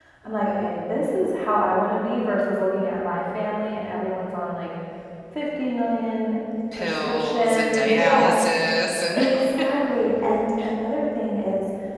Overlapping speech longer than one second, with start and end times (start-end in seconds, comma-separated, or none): 6.8-8.4